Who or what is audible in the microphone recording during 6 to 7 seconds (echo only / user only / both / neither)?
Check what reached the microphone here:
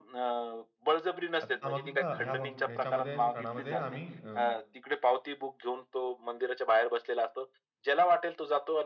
echo only